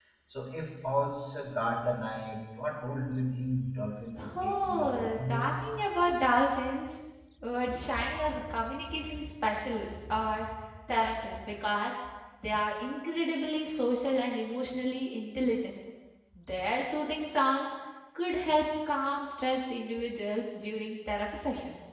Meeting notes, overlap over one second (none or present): present